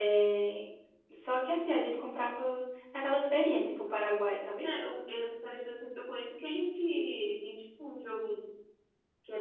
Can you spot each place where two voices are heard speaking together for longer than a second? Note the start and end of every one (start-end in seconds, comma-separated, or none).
none